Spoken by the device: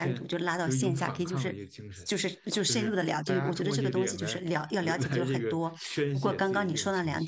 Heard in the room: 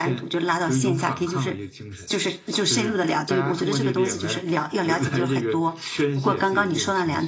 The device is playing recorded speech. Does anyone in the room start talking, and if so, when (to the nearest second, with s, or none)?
none